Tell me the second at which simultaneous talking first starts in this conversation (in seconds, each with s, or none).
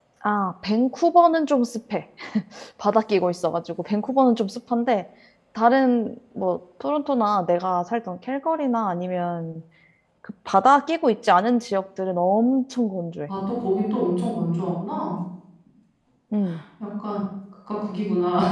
none